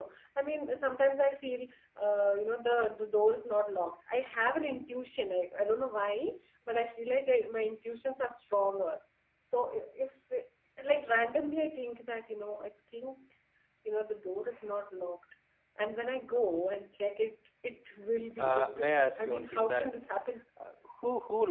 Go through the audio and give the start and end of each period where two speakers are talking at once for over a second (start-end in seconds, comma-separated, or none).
18.4-20.0